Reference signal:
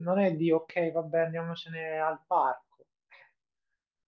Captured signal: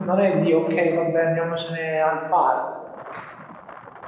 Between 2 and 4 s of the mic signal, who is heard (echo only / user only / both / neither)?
echo only